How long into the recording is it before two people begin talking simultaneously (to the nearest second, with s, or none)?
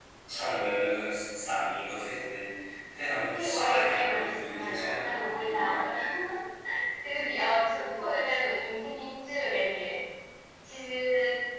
3 s